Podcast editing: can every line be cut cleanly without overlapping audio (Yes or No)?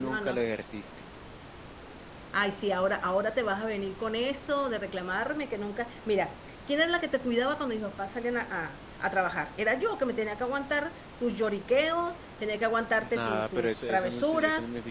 No